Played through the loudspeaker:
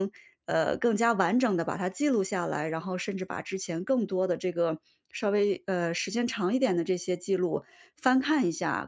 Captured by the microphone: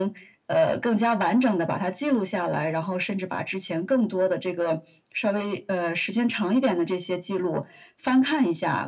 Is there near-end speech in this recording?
No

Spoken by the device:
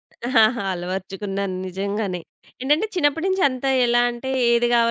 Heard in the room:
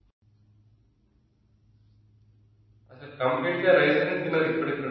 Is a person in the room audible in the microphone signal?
Yes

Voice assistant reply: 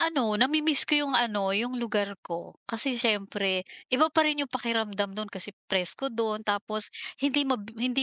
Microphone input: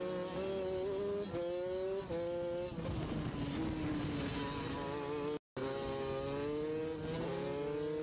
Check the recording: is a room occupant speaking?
No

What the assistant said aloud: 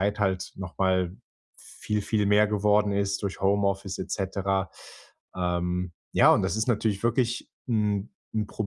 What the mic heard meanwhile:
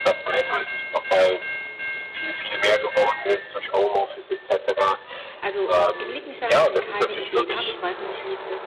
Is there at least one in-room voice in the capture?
Yes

